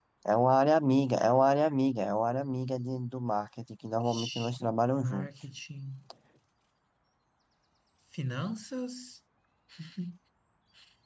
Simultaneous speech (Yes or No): Yes